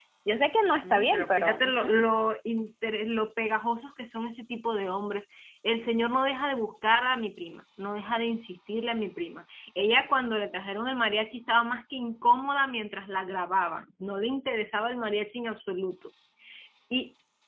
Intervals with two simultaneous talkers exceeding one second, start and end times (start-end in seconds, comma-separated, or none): 0.8-2.1